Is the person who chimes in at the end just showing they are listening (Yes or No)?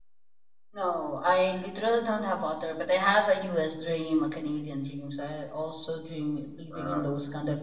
Yes